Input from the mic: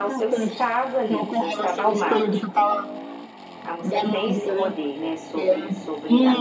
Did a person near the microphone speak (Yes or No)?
Yes